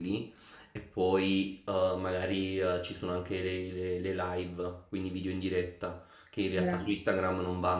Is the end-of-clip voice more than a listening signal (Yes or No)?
No